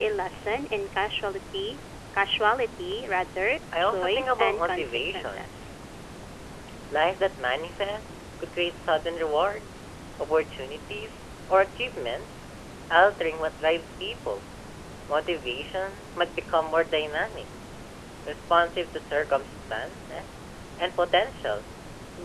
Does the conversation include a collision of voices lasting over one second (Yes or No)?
Yes